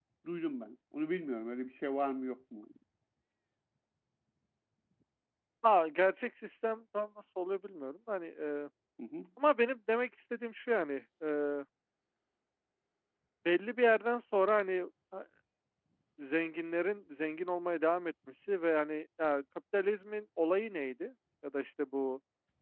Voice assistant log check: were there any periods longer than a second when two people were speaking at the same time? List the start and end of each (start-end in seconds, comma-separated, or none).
none